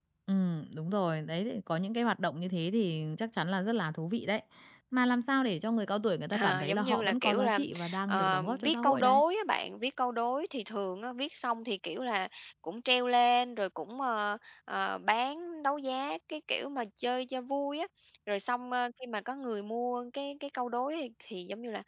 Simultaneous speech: Yes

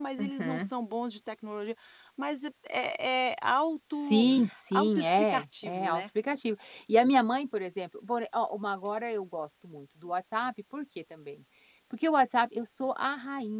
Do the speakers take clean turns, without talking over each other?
No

